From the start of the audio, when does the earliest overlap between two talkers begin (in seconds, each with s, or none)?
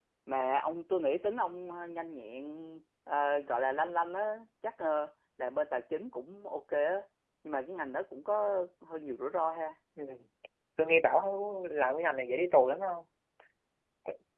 none